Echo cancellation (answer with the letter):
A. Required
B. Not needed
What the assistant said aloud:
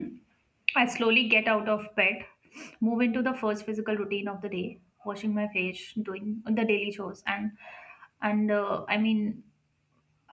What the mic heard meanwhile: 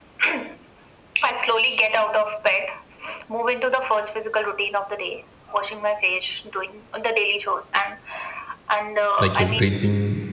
A